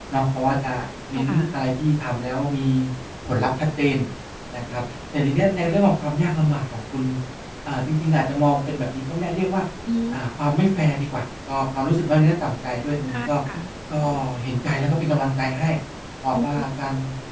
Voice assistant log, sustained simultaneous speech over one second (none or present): none